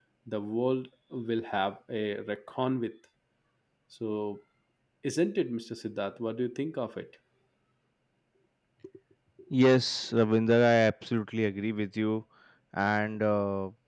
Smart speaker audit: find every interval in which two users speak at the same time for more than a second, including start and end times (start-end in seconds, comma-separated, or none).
none